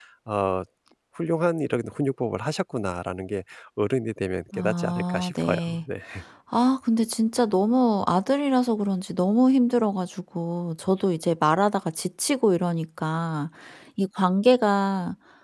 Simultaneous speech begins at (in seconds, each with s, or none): 4.5 s